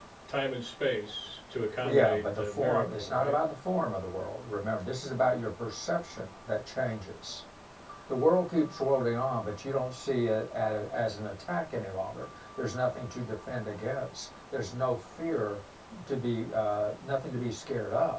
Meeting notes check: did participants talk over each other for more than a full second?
Yes, from 1.8 s

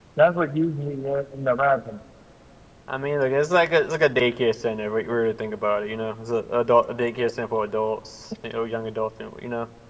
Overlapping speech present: No

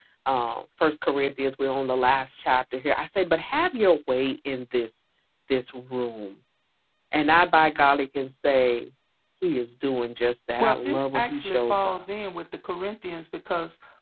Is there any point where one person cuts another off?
Yes, from 10.6 s

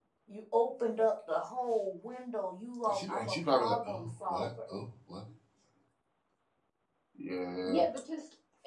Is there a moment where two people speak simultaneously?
Yes, from 2.9 s

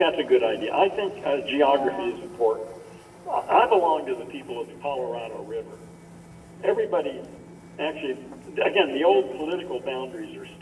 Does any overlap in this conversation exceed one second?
No

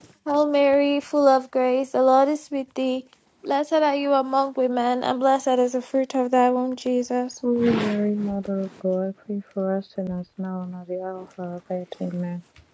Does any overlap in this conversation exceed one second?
No

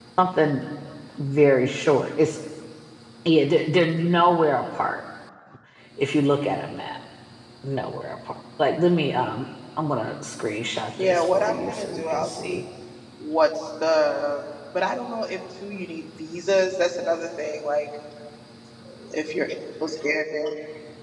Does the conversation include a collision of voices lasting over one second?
Yes, from 11.0 s

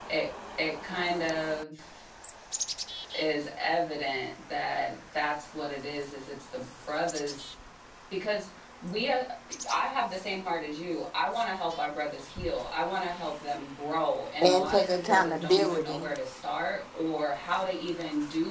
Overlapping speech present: Yes, from 14.4 s

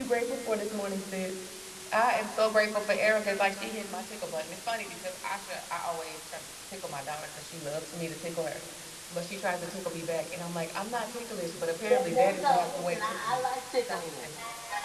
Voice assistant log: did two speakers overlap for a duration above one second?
Yes, from 11.9 s

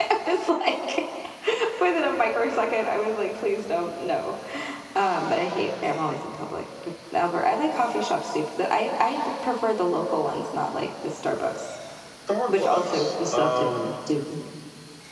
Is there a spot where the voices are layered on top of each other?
Yes, from 12.5 s

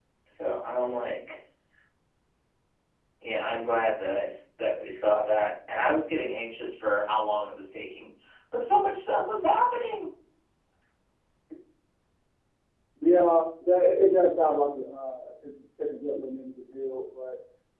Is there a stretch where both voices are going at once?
No

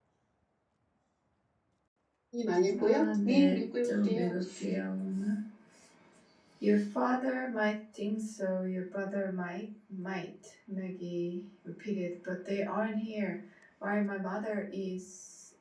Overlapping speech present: Yes, from 2.8 s

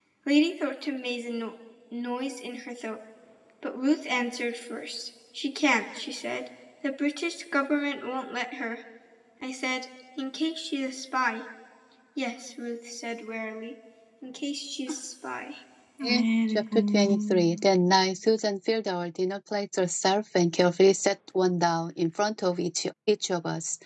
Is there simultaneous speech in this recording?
Yes, from 16.0 s

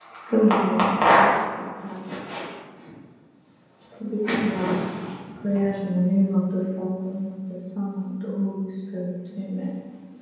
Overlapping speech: No

